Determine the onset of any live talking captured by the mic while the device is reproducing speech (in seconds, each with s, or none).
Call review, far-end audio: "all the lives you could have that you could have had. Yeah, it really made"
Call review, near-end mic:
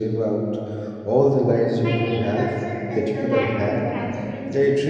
1.8 s